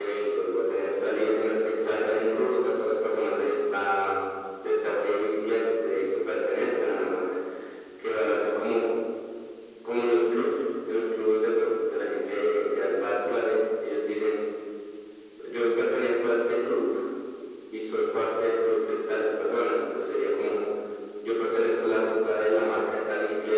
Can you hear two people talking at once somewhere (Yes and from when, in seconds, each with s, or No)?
No